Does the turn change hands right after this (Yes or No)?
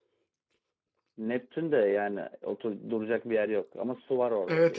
Yes